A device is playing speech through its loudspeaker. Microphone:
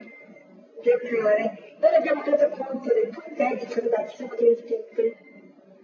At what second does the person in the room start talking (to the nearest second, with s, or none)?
none